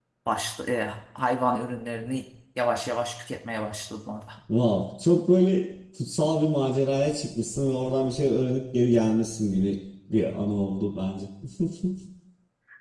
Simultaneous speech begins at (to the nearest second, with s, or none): none